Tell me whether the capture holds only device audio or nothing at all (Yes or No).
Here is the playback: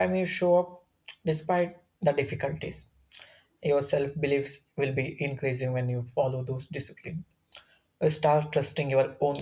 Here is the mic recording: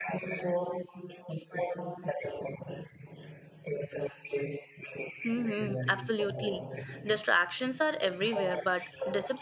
No